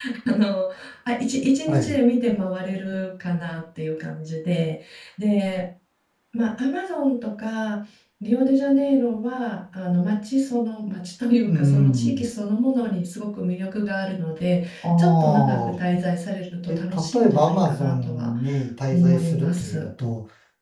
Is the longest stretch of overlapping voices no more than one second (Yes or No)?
No